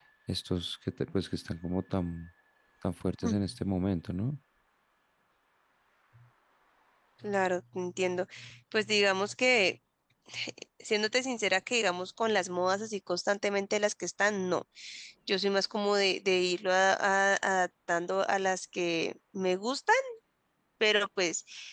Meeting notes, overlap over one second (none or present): none